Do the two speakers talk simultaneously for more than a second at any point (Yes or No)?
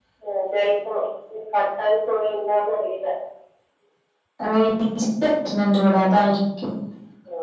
No